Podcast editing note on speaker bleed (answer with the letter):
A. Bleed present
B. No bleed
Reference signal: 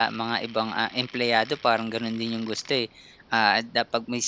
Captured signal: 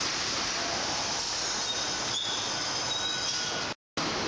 B